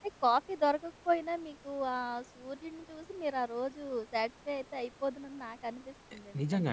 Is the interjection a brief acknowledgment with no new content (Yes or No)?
No